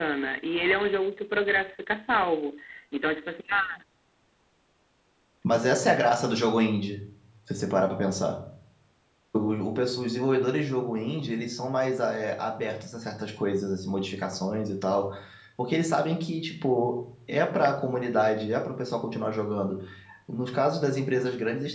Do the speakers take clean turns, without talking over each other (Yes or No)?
Yes